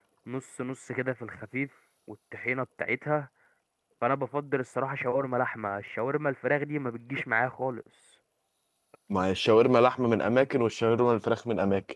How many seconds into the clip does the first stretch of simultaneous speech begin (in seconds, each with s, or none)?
none